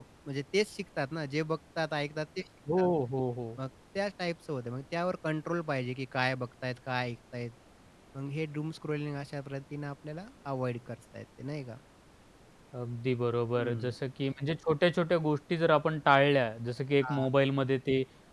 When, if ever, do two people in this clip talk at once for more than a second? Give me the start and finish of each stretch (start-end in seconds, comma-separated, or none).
none